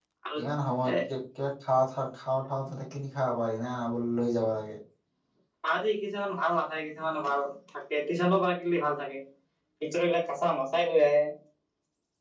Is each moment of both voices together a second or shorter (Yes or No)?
Yes